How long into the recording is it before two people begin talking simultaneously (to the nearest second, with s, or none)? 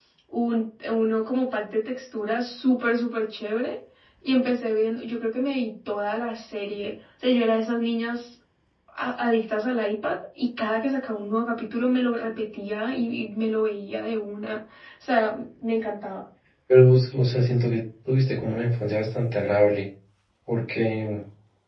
none